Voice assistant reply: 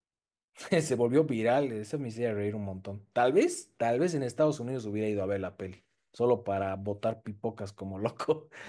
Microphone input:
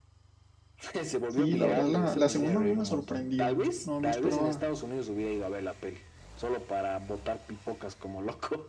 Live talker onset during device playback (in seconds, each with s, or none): 1.3 s